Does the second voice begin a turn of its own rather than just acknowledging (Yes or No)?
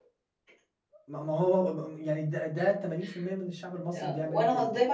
Yes